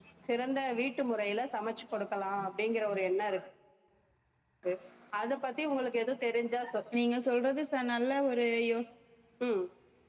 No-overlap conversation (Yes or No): Yes